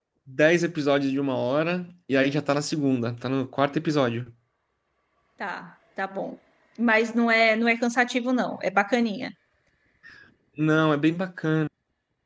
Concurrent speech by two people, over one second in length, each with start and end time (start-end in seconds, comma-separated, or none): none